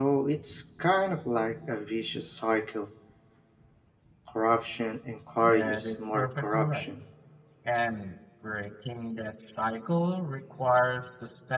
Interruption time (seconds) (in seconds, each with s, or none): 5.4 s